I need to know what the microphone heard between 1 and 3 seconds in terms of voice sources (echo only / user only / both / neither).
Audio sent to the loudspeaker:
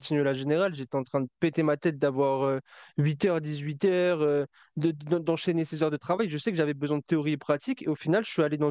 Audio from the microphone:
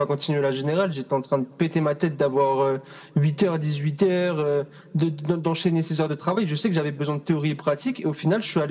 echo only